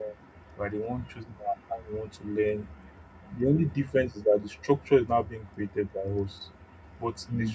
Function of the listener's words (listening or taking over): listening